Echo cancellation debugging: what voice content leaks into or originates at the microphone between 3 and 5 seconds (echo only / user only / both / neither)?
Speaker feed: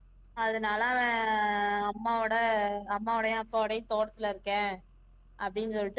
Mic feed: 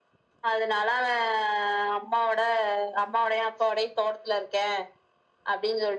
echo only